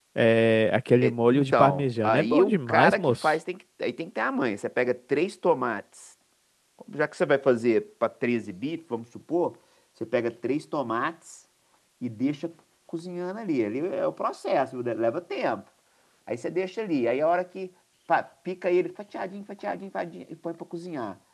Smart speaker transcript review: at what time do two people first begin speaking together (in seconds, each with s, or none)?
1.0 s